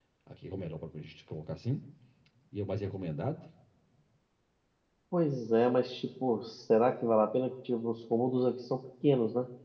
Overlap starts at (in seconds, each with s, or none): none